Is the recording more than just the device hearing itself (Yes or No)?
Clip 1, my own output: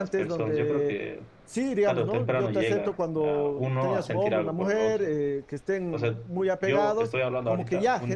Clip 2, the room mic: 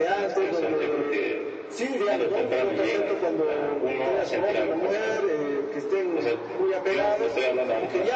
No